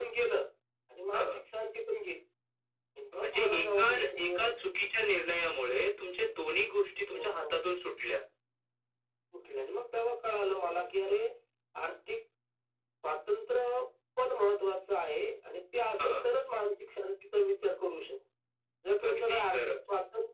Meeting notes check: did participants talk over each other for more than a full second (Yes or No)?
Yes